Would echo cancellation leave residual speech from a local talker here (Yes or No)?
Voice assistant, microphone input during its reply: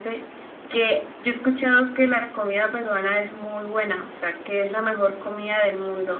No